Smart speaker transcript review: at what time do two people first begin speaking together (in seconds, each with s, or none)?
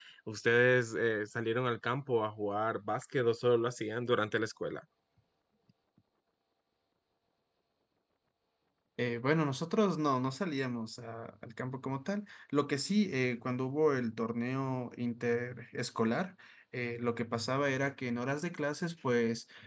none